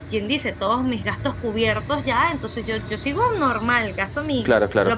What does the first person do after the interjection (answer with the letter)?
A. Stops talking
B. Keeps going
B